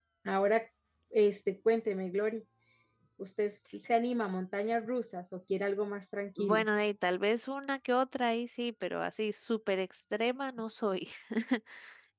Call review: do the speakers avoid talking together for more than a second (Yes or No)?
Yes